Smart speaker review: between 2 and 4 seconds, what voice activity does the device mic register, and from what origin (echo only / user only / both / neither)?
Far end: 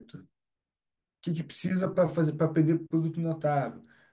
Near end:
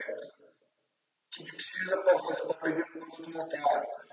echo only